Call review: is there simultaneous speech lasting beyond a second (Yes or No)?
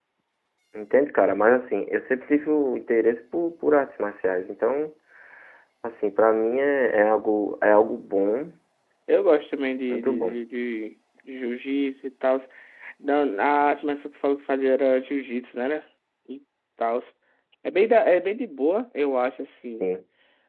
No